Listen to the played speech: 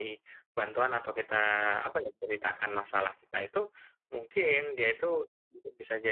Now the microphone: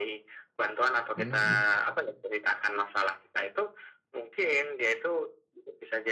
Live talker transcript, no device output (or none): mhm mhm,